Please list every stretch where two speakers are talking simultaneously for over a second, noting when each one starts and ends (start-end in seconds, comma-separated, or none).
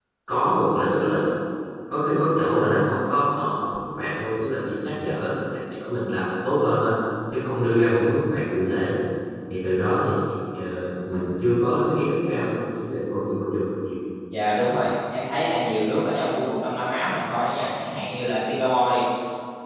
none